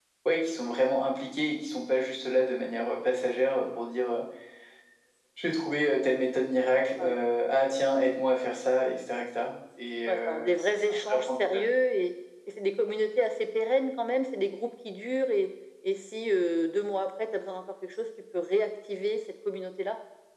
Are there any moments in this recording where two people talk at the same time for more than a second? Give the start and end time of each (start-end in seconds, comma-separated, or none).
10.1-11.7